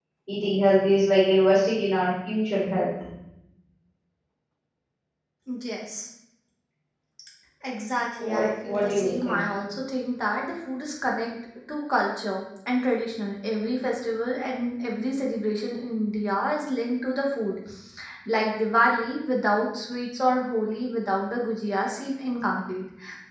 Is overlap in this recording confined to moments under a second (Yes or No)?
No